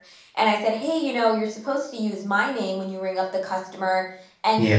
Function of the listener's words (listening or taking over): listening